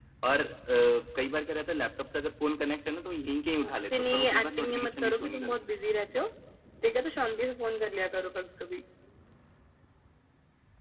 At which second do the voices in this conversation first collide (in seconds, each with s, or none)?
3.6 s